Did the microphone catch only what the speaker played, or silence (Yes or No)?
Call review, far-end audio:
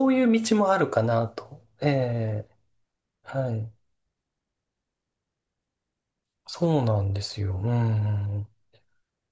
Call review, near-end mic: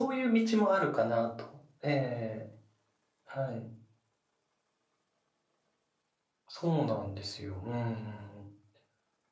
Yes